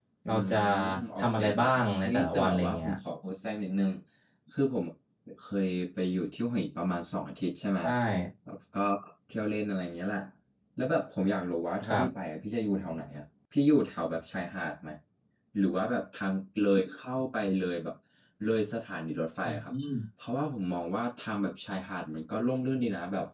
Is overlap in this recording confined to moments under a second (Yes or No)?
No